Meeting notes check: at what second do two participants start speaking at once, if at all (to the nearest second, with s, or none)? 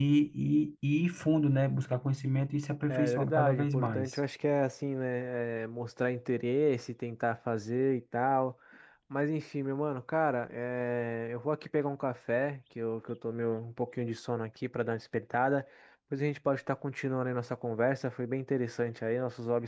3 s